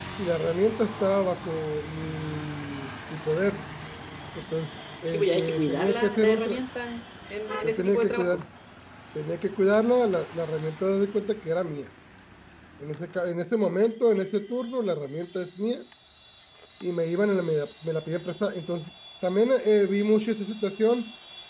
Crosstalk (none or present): present